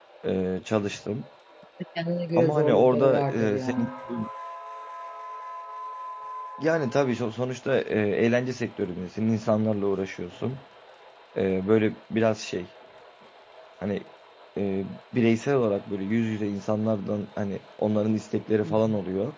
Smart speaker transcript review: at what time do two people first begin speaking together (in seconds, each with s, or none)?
2.4 s